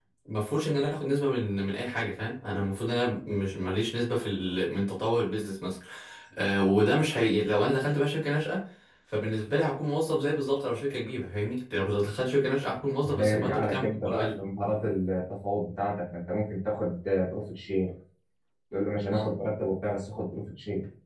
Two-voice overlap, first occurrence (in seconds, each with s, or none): 13.0 s